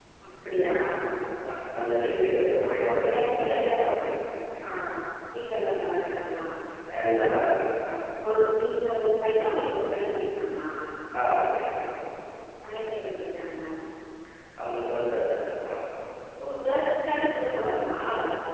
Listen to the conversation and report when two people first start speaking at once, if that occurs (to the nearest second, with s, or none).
2 s